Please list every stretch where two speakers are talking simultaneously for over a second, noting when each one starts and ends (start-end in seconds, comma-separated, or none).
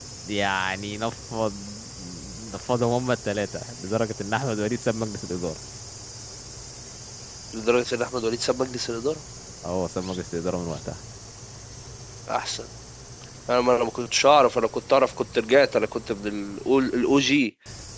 none